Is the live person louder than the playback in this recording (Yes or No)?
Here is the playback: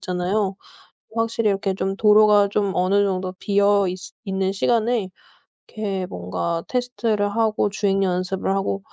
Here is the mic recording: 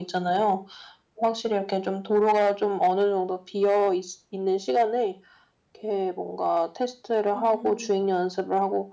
No